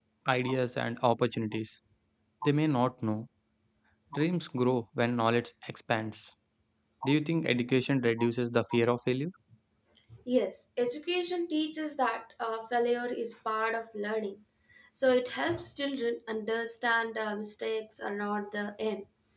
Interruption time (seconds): none

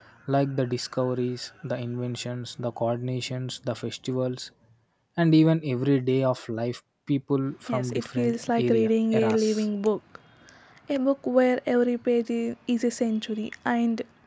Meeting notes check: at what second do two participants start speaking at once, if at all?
7.7 s

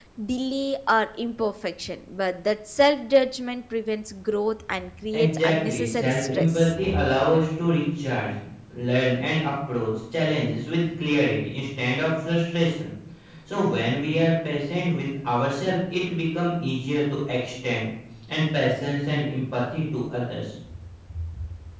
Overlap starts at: 5.1 s

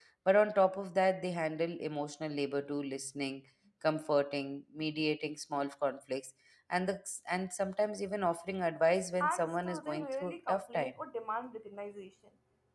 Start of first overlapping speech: 9.2 s

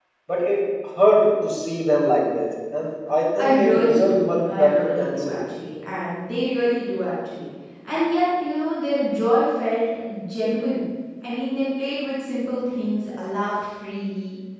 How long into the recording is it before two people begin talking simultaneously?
3.4 s

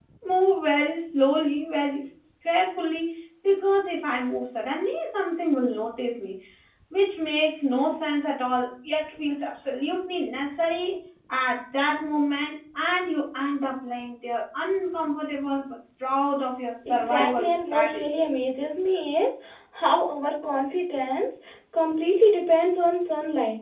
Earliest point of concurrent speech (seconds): 16.8 s

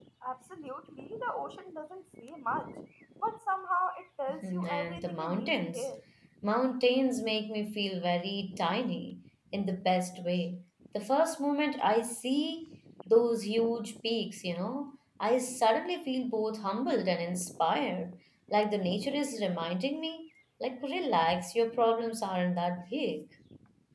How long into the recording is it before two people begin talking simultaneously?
4.3 s

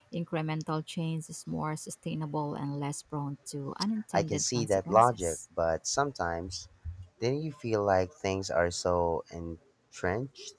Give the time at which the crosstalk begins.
4.1 s

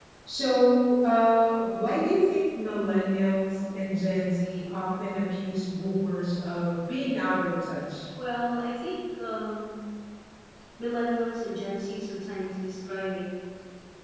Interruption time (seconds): none

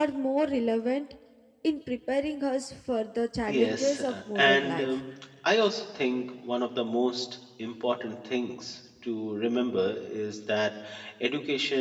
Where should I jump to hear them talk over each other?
3.5 s

